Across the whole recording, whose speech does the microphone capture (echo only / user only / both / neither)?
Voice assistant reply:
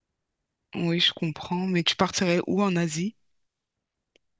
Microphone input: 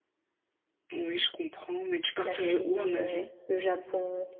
both